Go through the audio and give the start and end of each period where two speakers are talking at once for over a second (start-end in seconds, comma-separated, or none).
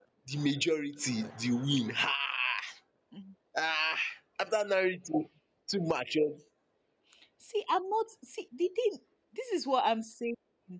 none